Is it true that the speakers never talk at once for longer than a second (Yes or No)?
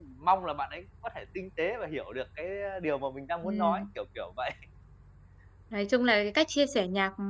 Yes